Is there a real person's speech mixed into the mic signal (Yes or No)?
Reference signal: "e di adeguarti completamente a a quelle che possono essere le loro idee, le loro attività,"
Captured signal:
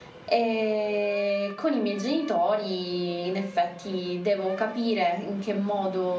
Yes